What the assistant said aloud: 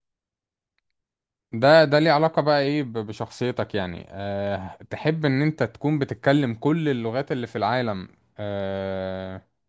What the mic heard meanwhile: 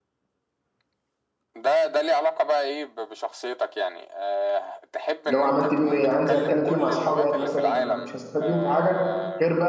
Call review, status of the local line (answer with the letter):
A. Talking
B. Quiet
A